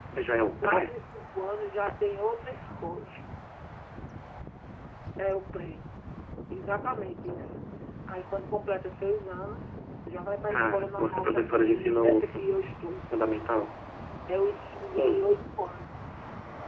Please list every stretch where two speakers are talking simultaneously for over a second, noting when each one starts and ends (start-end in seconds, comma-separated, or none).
10.5-12.4